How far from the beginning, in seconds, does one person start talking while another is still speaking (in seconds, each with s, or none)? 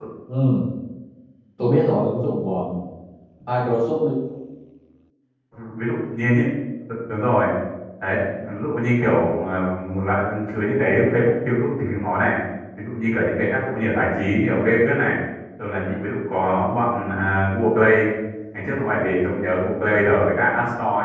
none